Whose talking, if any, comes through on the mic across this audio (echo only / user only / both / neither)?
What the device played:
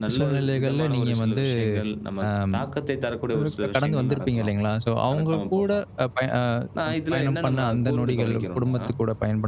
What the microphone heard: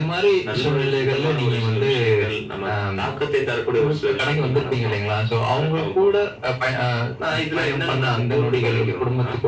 echo only